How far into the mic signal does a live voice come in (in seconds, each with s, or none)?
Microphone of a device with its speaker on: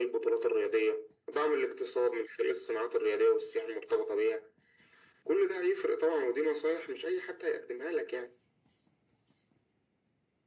none